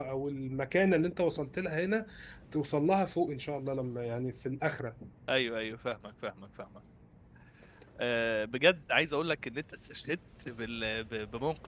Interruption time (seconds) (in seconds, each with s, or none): none